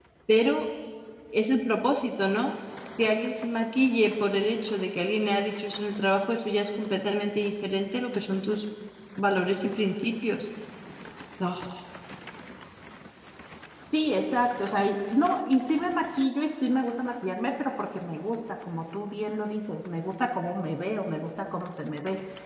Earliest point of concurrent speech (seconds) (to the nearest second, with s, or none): none